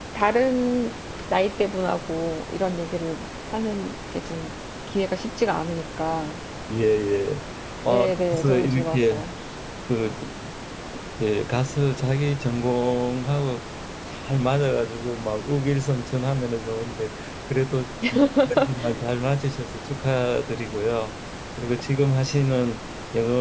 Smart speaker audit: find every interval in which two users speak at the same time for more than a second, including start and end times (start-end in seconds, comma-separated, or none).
7.9-9.2